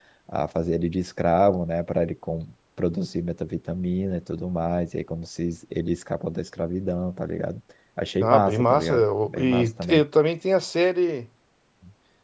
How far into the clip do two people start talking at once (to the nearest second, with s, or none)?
8 s